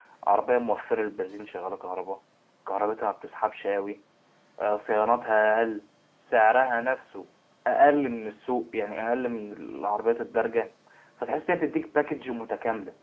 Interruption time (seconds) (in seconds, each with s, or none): none